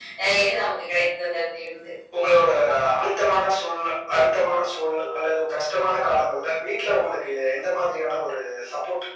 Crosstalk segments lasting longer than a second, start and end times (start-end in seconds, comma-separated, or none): none